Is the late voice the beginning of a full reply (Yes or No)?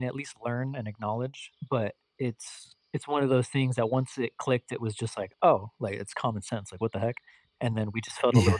No